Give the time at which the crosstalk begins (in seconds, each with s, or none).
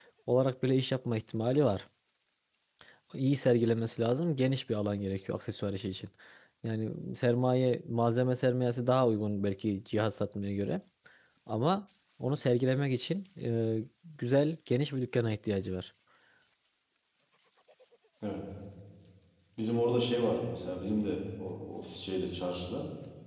none